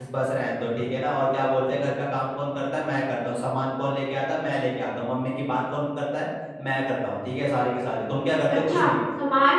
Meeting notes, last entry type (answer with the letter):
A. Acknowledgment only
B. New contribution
B